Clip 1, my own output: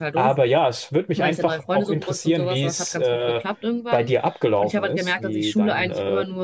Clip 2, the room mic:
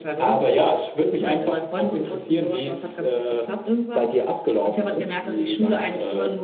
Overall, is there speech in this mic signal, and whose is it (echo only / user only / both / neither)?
echo only